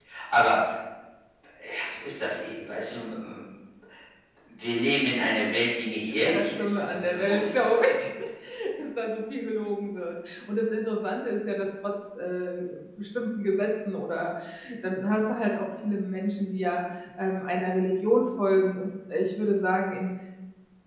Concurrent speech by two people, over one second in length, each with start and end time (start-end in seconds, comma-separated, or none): 6.2-7.9